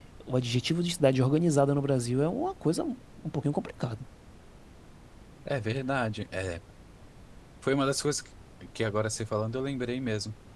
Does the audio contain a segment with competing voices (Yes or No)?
No